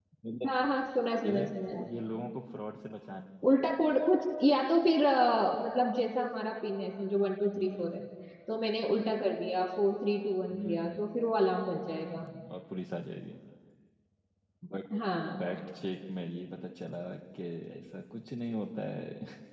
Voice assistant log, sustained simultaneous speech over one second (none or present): none